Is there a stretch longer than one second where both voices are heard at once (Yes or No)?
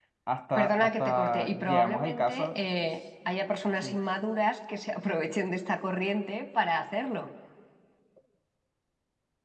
Yes